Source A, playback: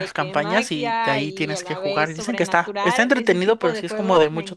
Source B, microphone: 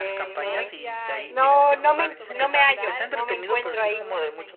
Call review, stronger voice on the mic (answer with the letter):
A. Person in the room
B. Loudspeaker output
A